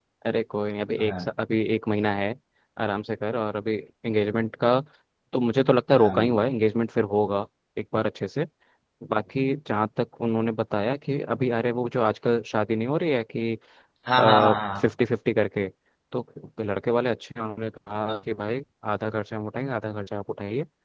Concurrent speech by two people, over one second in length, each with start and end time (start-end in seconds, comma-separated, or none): none